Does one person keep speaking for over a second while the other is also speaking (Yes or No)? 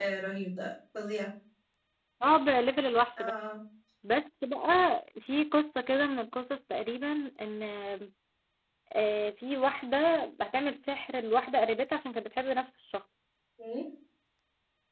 No